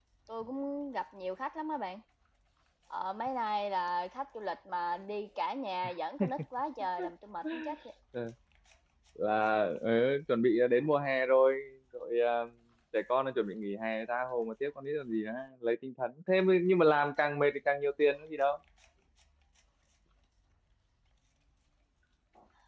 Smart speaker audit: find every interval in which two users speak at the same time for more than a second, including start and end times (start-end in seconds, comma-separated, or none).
none